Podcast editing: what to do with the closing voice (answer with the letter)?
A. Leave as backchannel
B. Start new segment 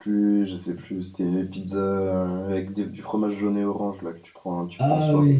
B